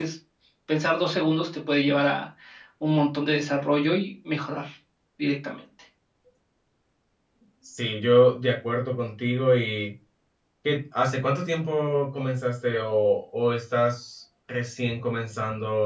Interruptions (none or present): none